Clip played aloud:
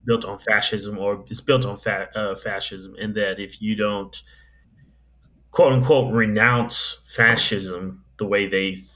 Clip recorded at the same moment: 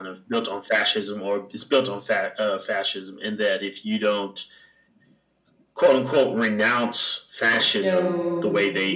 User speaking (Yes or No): Yes